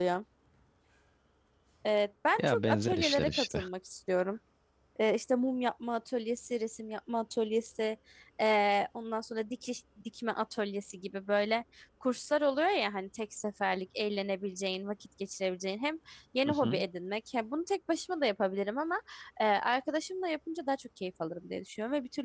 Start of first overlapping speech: 2.4 s

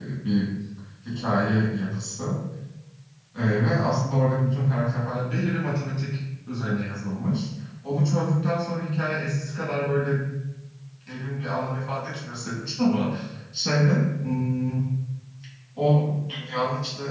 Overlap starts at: none

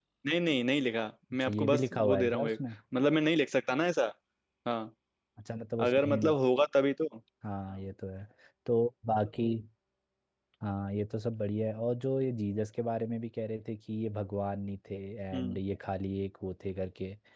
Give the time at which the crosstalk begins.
1.3 s

